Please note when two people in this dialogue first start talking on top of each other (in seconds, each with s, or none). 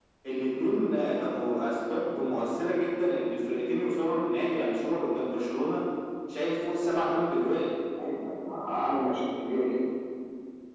none